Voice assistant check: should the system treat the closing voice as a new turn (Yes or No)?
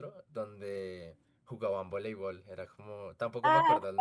Yes